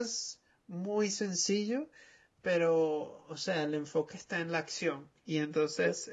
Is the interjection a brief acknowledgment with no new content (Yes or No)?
Yes